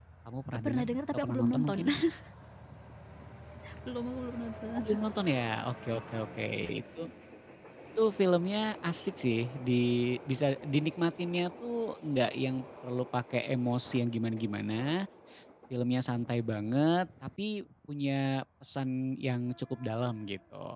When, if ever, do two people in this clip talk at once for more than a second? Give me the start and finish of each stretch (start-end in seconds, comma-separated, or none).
0.5-1.8